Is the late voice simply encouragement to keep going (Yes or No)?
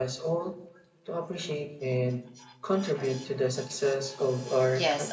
No